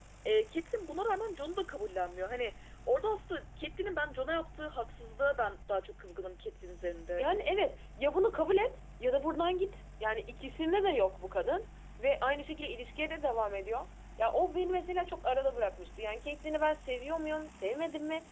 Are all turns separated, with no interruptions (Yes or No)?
Yes